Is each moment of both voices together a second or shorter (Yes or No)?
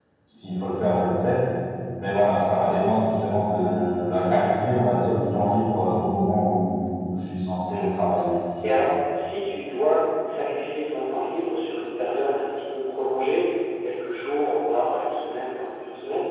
Yes